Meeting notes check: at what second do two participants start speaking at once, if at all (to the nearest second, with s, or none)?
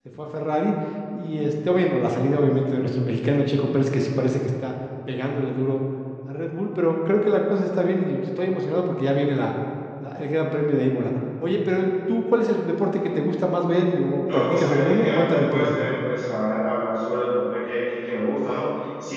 14 s